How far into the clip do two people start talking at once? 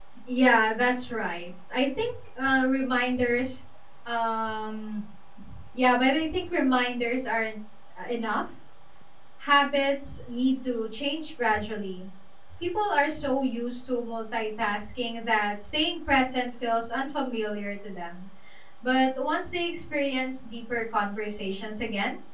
none

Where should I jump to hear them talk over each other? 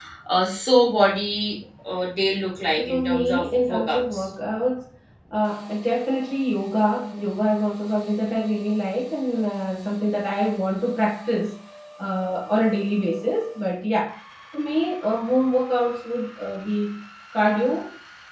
2.8 s

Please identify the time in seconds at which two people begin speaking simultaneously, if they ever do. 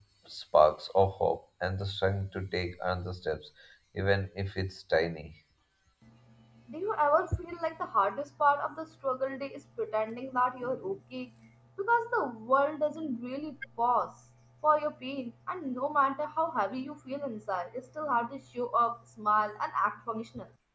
none

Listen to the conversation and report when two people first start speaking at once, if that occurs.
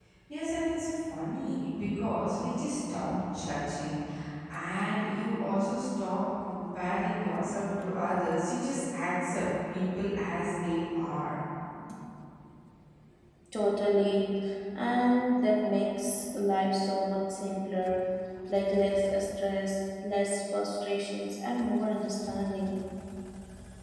none

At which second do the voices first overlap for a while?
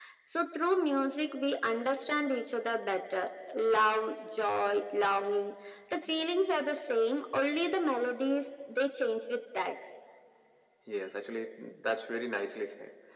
none

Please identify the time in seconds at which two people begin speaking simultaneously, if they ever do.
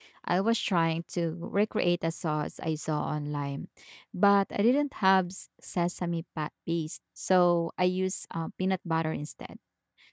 none

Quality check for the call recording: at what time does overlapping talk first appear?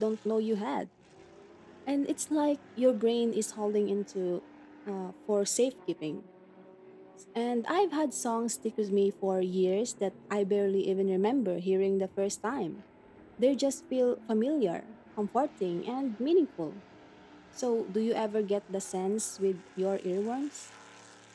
none

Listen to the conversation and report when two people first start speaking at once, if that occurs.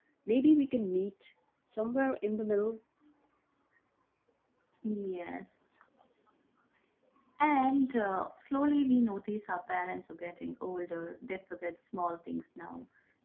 none

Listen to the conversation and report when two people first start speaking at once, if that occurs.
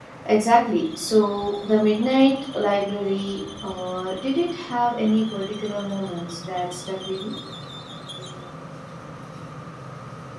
none

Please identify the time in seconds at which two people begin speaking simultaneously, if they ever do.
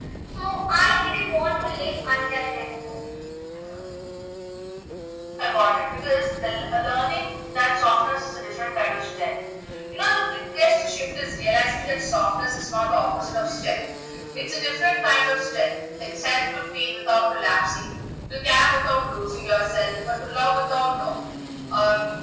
none

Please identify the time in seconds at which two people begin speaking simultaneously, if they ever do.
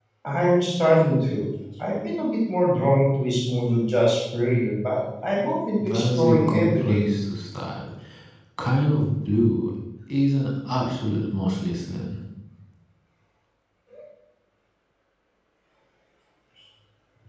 5.8 s

